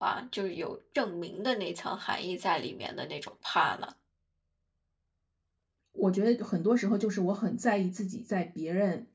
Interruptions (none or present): none